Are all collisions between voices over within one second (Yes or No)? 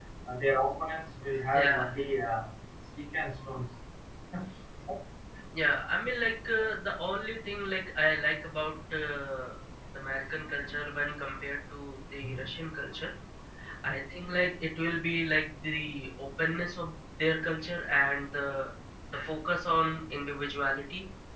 Yes